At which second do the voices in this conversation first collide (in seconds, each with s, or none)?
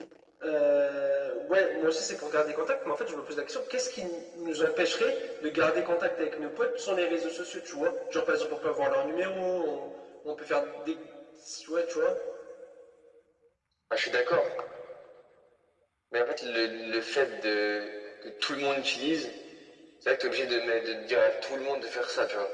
none